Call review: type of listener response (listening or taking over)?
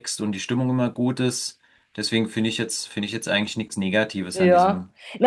taking over